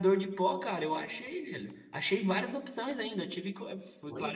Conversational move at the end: listening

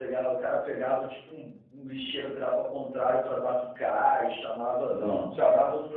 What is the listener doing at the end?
listening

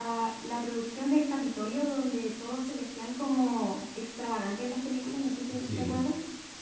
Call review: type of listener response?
taking over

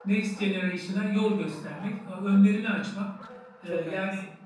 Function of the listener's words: listening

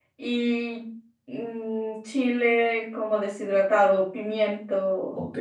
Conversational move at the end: taking over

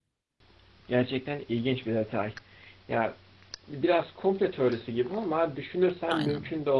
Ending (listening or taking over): listening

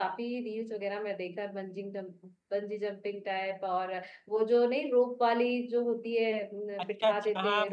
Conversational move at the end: taking over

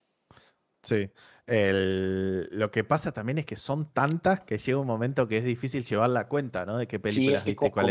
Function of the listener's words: taking over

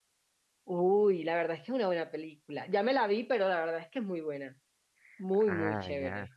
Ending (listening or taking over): taking over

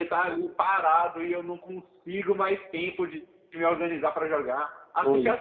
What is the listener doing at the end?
listening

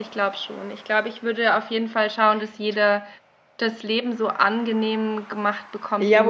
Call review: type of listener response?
taking over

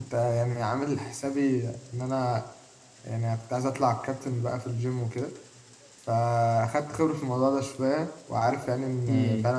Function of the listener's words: listening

